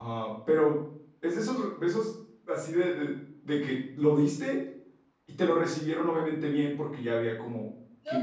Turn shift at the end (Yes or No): Yes